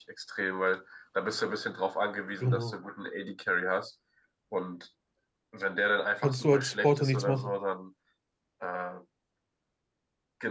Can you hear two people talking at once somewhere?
Yes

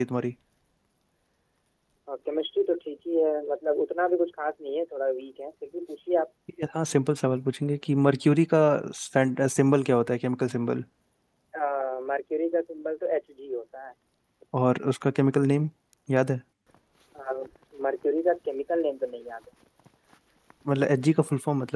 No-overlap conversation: Yes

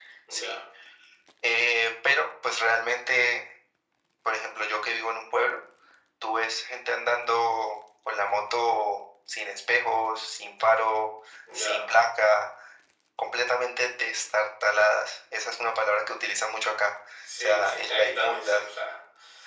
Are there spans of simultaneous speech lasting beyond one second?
Yes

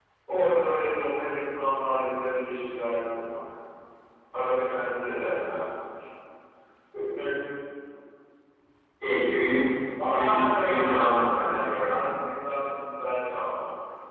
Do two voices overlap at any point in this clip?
Yes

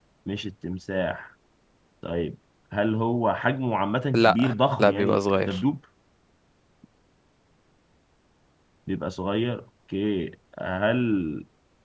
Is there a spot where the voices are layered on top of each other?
Yes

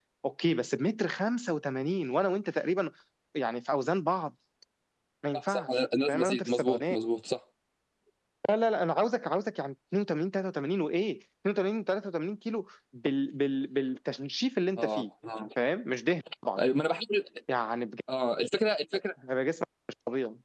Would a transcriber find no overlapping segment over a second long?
No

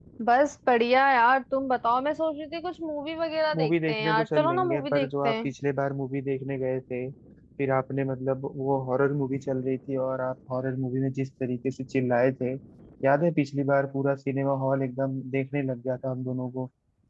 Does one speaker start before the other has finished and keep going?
Yes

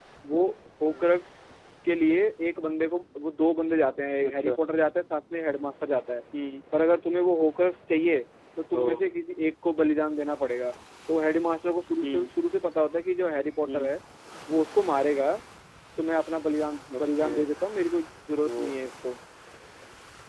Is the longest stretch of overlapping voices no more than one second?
Yes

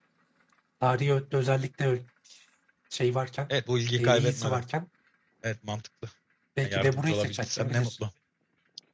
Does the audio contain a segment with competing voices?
Yes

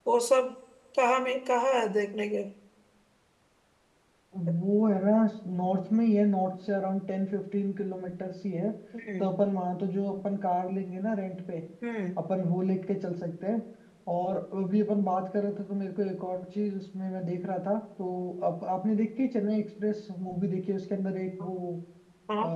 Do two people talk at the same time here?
No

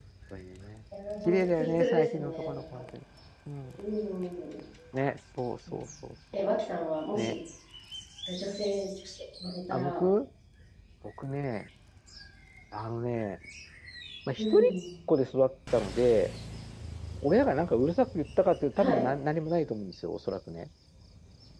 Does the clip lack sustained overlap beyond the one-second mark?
No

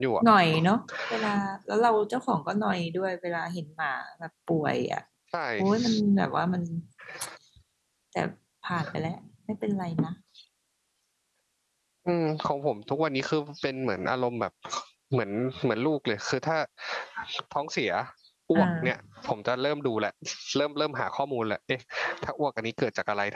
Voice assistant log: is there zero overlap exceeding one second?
Yes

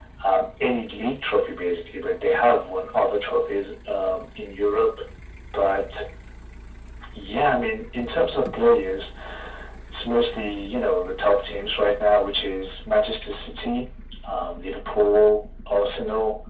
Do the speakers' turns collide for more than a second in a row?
No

